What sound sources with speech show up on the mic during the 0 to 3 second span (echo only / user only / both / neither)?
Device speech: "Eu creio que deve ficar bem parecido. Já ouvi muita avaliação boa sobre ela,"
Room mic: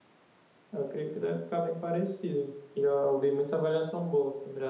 echo only